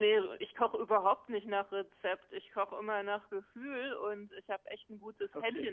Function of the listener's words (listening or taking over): listening